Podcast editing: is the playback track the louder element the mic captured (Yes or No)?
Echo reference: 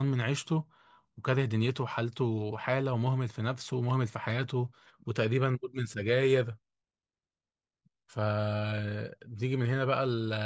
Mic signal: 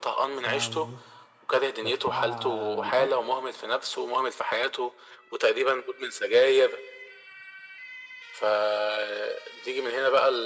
Yes